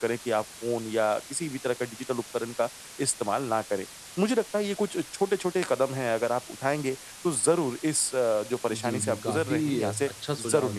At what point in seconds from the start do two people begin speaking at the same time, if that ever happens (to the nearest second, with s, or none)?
9 s